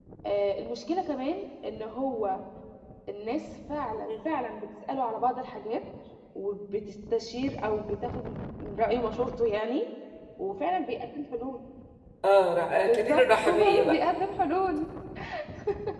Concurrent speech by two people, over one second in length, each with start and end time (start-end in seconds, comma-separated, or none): 12.7-14.0